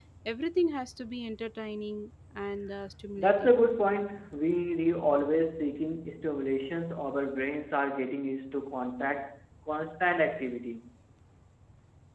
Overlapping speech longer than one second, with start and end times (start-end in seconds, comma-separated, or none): none